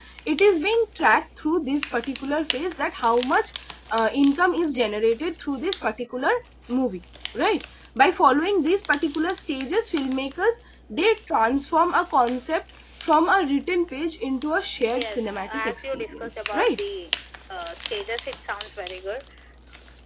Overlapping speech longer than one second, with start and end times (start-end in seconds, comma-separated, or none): 14.8-16.8